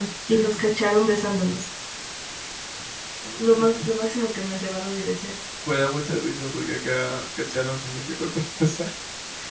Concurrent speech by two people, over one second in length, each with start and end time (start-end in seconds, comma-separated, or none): none